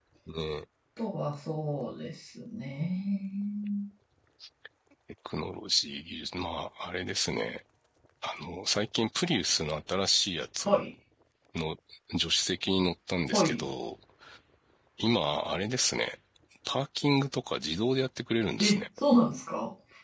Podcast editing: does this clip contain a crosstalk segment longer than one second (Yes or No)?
No